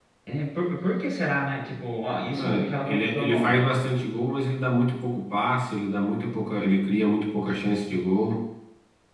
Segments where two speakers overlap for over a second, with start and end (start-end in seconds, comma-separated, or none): 2.3-3.6